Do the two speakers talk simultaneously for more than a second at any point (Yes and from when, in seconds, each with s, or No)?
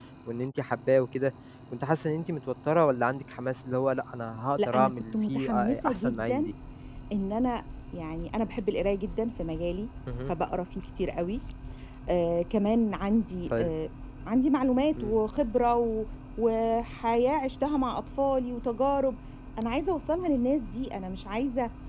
Yes, from 4.6 s